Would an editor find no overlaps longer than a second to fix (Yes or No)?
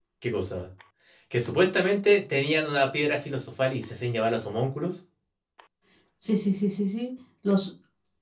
Yes